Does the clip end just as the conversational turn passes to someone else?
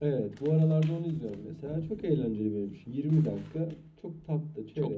No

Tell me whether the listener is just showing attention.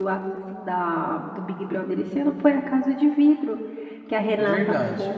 Yes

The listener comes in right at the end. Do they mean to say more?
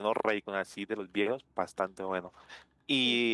No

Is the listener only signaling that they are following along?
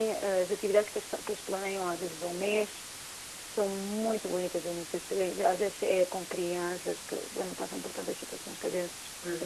No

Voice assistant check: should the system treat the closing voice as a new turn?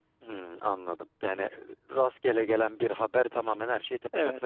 Yes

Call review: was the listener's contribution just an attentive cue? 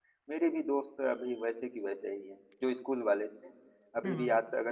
Yes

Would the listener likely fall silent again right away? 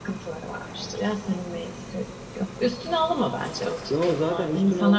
No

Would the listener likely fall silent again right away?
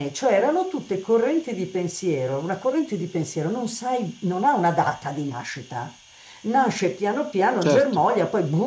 Yes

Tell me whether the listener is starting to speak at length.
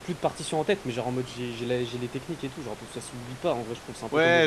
Yes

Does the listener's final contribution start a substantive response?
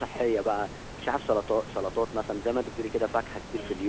No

